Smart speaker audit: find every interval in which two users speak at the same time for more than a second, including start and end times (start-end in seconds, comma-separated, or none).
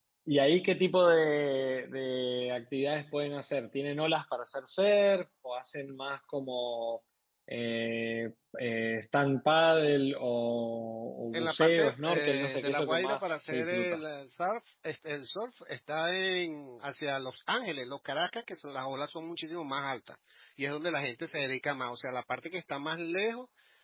11.3-14.0